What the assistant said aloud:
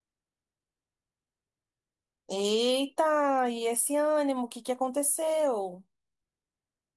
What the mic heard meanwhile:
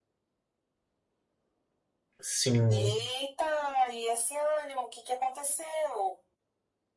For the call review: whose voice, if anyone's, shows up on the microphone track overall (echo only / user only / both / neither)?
both